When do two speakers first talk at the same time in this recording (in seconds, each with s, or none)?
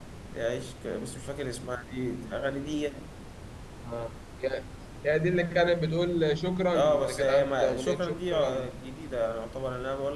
6.7 s